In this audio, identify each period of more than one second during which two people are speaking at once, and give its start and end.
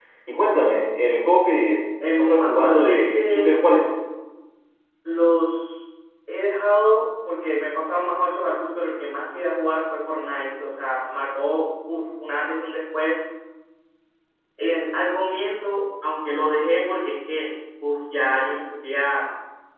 2.2-3.6

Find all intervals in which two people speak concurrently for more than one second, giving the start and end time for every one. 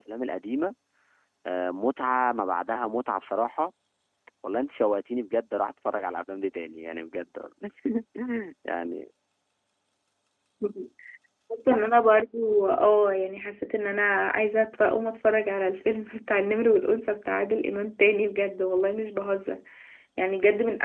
none

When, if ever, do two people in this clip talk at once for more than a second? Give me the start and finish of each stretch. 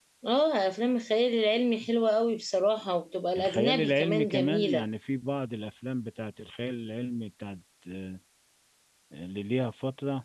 3.4-4.8

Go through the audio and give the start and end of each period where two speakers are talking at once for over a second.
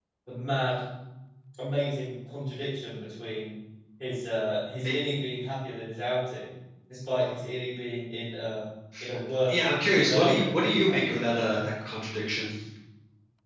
9.5-11.6

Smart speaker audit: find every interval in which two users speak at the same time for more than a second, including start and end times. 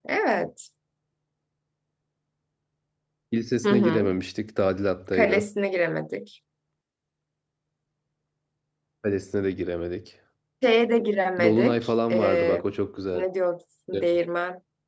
11.4-12.6

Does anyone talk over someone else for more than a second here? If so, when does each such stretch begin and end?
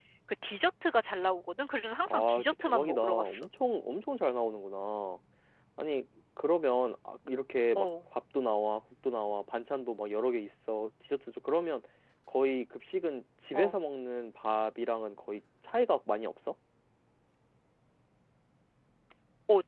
2.1-3.5

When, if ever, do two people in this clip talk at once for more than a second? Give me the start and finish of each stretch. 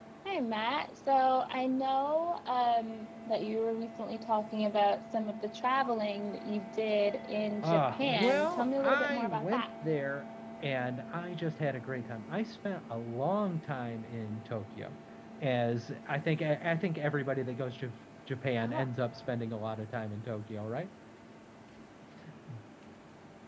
7.6-9.7

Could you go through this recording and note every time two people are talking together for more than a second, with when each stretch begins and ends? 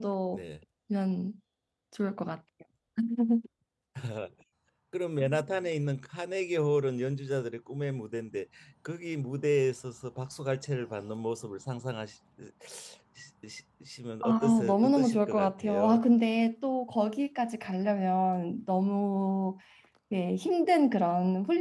14.2-16.0

